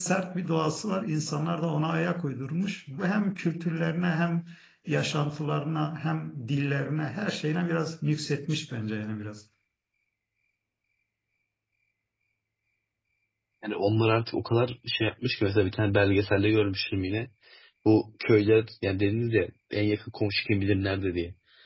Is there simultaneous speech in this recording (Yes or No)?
No